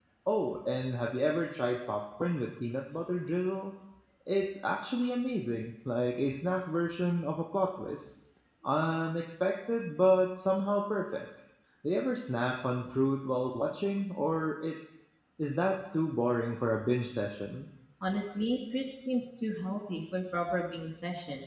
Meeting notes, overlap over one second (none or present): none